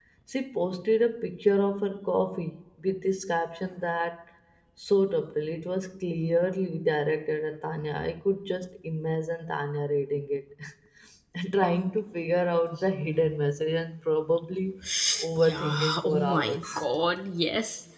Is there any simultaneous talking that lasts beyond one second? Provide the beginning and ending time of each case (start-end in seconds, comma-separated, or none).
15.4-16.7